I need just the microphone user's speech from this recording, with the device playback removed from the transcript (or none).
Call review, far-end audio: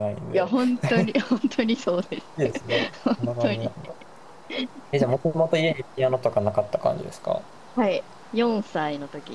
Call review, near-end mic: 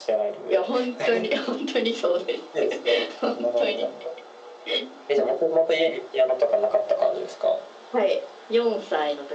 none